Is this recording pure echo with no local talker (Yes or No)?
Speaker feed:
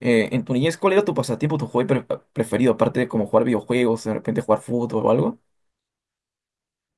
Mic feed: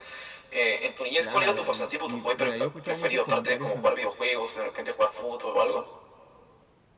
No